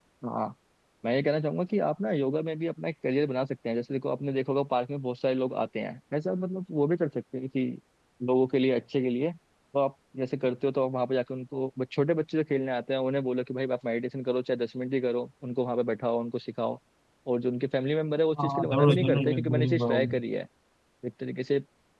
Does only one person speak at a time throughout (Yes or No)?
No